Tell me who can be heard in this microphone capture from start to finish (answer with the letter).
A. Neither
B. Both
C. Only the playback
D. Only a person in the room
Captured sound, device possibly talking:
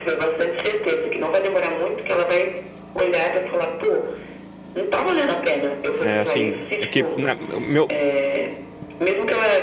B